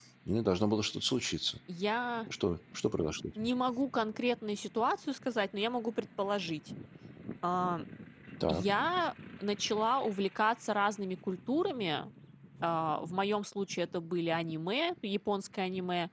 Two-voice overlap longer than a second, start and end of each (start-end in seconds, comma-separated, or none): none